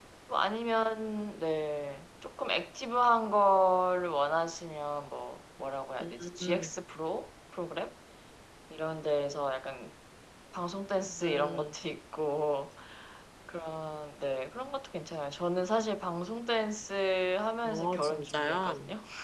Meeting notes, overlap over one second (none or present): present